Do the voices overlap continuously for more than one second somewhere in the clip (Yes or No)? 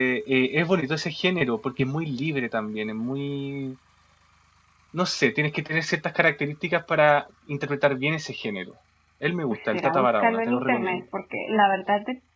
Yes